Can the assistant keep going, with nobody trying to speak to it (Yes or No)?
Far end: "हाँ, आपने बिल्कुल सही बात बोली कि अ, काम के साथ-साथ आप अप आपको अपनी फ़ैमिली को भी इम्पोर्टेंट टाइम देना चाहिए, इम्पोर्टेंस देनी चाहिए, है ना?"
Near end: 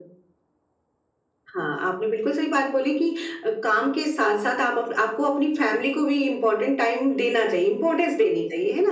Yes